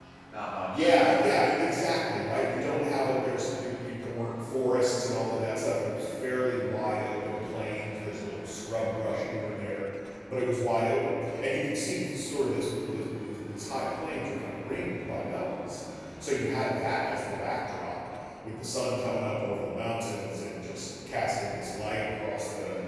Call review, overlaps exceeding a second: present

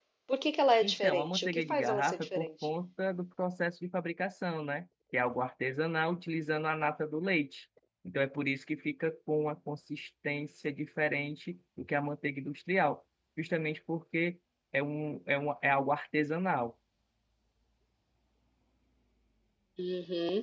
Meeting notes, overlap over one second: present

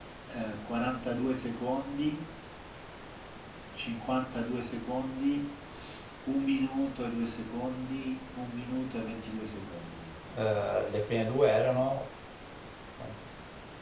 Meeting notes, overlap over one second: none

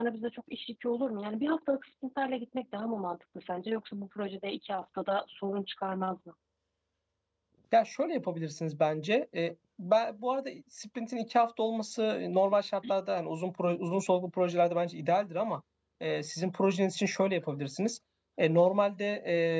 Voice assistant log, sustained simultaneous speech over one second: none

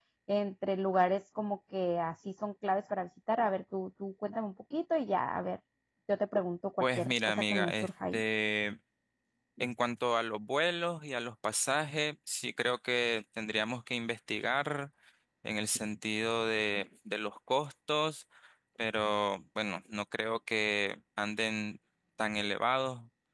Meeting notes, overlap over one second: present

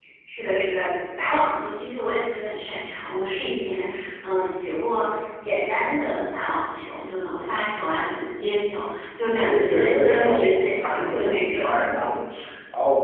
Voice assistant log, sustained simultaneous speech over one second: present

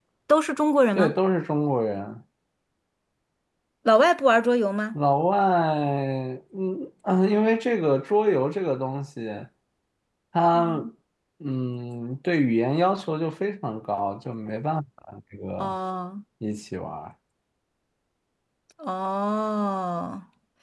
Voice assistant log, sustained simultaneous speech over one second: none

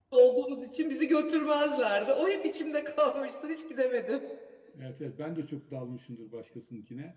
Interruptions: none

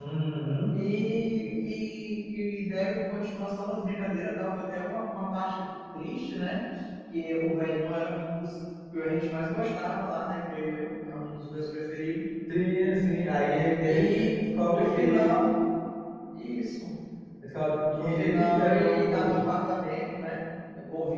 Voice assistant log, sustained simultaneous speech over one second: present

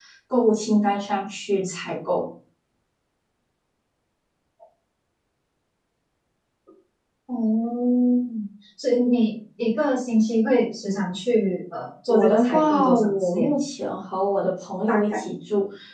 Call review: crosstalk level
present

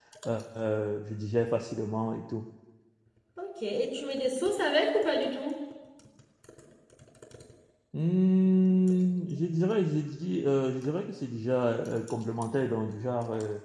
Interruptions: none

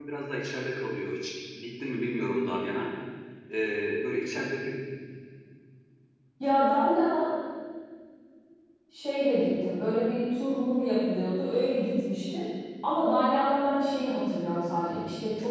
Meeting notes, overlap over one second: none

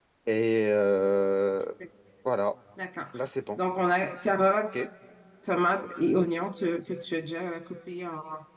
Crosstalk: none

